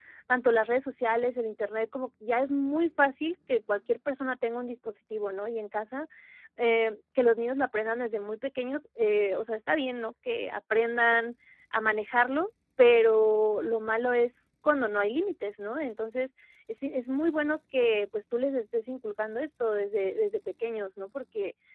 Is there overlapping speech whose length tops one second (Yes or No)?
No